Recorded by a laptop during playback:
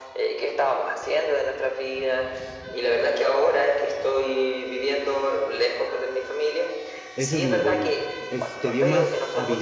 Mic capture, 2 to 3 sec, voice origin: echo only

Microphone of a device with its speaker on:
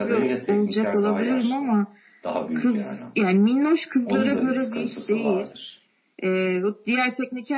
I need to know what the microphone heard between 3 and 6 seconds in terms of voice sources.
both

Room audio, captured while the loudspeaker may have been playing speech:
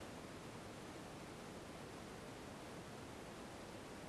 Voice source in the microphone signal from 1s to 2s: neither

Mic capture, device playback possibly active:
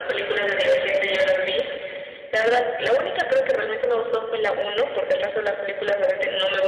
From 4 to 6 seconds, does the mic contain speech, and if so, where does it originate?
echo only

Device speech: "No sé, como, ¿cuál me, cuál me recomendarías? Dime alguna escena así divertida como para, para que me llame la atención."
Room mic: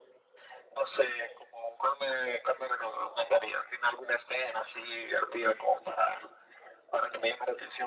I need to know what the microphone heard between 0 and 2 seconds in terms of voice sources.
echo only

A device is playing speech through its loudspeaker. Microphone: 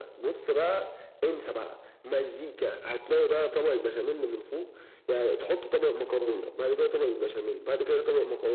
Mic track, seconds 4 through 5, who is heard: echo only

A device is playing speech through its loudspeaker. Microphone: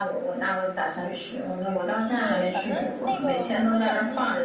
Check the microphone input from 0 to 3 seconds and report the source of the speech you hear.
both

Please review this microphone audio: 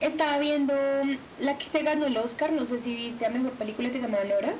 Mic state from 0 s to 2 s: echo only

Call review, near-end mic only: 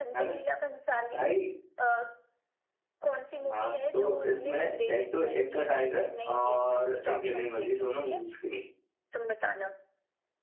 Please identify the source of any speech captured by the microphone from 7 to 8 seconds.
both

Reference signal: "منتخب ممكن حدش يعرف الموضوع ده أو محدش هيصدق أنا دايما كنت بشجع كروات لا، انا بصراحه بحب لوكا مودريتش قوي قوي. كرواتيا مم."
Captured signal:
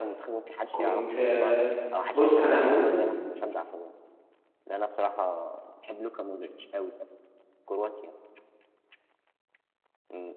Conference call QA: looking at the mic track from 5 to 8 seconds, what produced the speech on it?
echo only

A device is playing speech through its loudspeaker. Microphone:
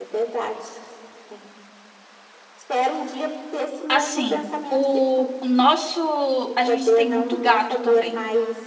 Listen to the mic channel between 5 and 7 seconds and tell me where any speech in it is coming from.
both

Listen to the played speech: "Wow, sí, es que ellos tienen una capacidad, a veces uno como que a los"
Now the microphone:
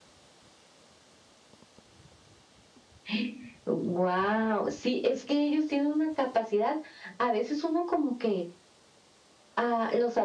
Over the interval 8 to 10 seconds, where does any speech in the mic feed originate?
echo only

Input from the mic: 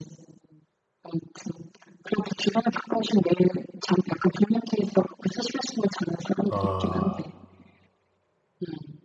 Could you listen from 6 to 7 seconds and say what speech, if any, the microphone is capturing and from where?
both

